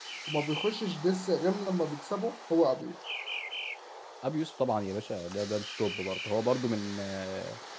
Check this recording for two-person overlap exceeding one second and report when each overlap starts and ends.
none

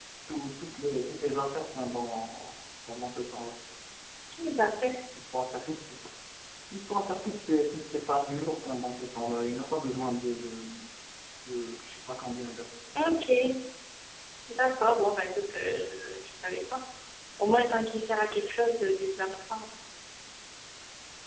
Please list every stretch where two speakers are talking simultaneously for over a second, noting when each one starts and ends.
none

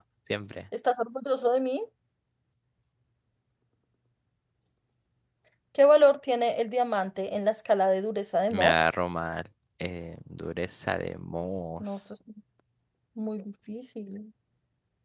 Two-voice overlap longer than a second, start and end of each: none

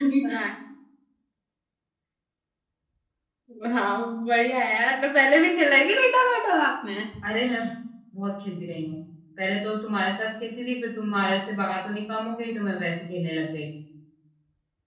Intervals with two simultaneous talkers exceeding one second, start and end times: none

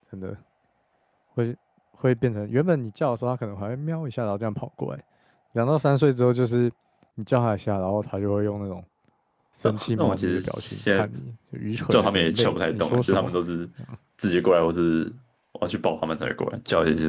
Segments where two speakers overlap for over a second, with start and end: 9.6-11.1, 11.9-13.4

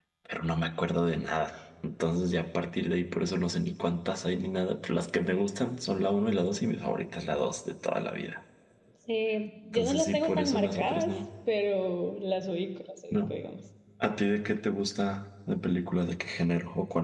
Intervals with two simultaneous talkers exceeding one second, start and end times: 9.7-11.3

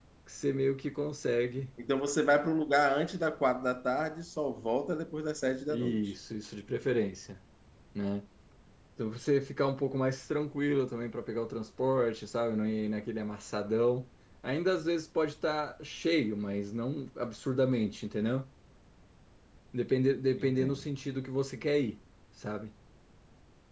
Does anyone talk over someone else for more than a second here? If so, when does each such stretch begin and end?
none

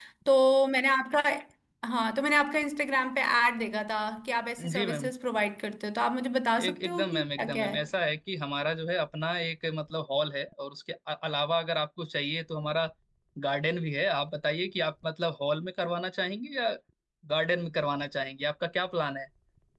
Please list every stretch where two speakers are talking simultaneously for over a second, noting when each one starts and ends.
6.6-7.9

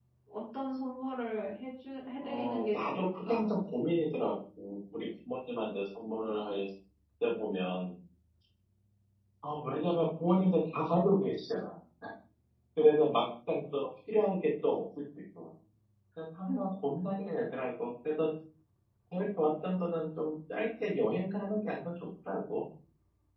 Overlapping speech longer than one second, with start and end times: 2.2-3.5

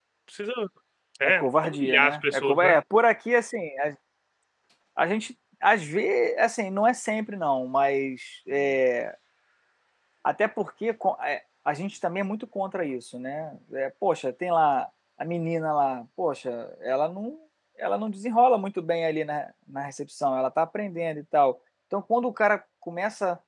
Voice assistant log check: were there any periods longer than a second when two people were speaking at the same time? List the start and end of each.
1.2-2.7

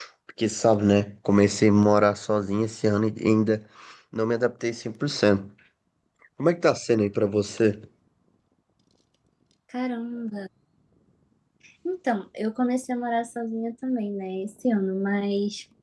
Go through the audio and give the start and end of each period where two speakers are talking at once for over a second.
none

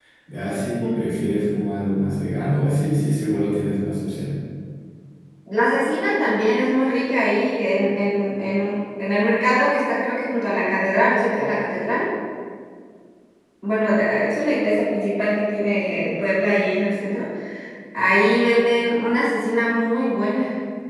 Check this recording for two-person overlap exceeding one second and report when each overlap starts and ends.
none

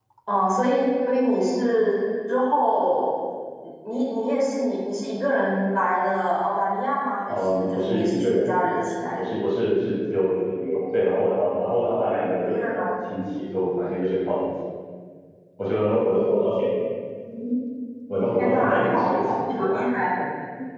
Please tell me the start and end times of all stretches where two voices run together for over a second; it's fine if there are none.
7.3-8.5, 18.4-19.8

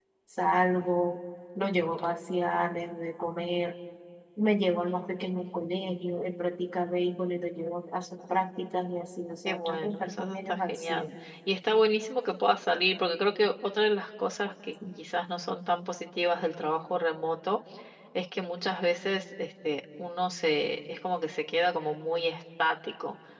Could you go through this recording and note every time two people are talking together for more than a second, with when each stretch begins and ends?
9.5-11.1

